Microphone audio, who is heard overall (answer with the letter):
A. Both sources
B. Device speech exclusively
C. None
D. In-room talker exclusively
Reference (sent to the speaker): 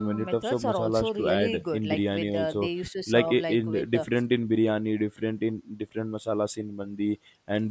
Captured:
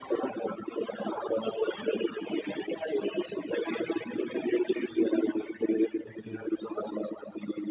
A